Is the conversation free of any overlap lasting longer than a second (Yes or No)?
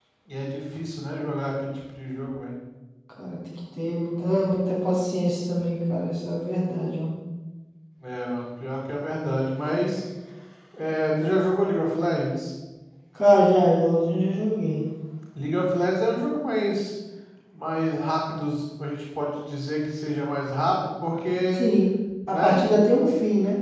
Yes